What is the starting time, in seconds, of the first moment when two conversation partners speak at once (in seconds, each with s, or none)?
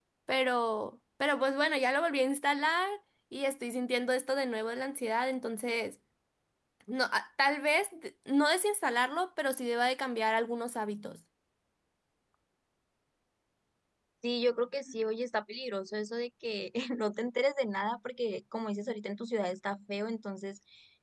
none